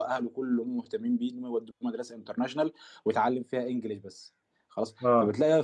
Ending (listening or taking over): listening